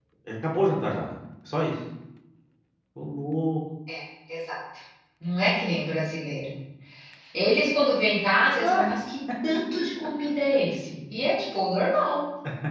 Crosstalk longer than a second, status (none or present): none